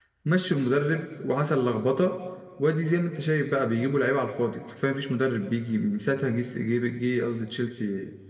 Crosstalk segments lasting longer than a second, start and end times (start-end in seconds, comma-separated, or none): none